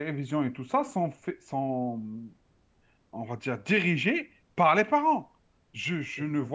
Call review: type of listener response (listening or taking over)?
listening